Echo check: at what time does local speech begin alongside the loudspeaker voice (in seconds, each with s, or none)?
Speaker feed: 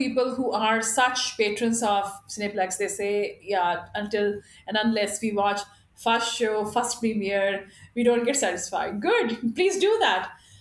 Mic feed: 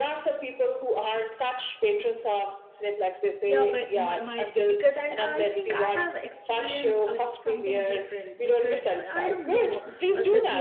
3.5 s